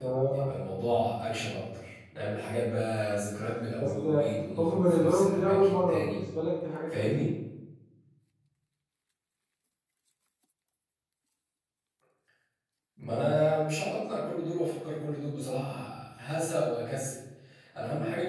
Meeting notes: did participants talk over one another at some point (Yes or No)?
Yes